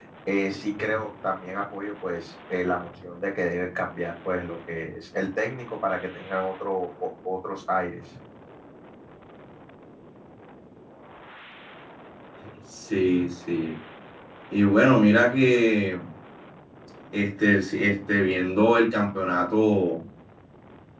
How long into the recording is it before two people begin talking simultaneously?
none

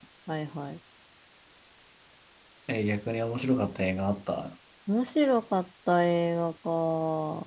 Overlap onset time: none

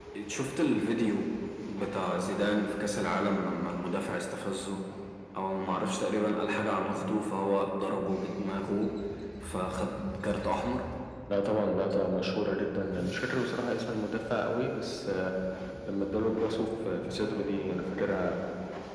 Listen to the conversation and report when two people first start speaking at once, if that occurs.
none

